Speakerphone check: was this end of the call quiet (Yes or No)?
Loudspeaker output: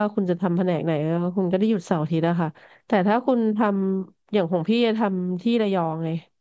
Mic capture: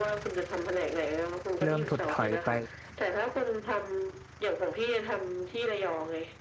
No